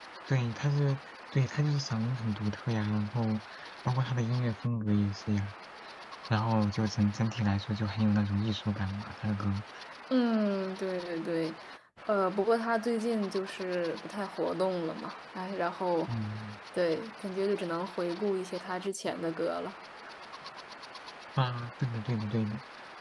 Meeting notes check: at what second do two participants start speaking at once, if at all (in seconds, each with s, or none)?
none